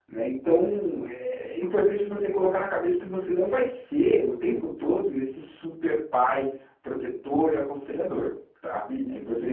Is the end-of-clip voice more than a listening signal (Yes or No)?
No